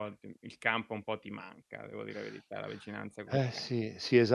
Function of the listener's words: taking over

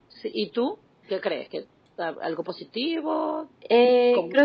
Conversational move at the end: taking over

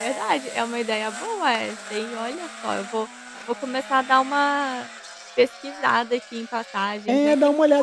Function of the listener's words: taking over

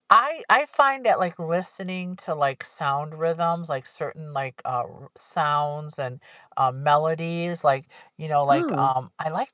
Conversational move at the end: listening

